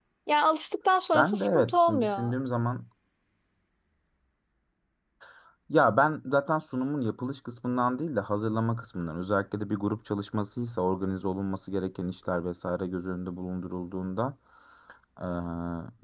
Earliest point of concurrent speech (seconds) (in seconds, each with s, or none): 1.1 s